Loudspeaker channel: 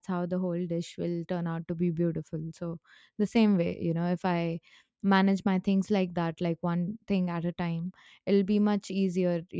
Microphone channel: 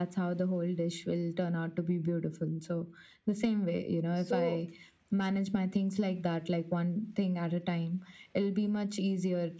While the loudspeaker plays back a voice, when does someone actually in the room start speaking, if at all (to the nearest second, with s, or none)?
4 s